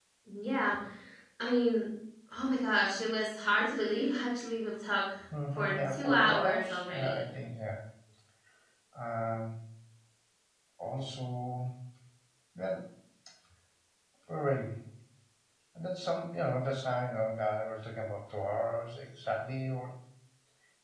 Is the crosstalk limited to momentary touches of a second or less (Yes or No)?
No